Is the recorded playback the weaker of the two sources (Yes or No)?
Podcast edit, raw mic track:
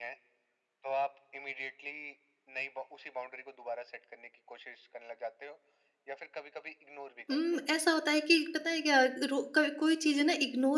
Yes